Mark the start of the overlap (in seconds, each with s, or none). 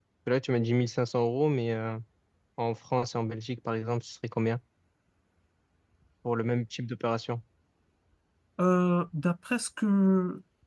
none